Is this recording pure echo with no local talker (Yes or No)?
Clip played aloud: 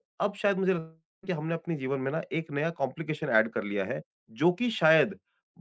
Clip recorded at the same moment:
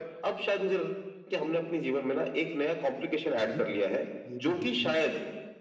No